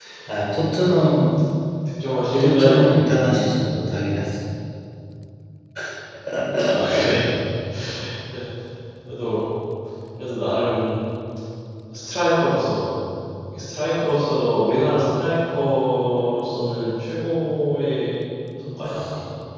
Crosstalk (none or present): present